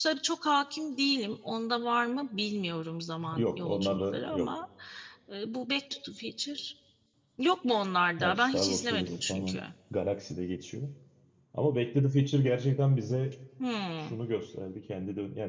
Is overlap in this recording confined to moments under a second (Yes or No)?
No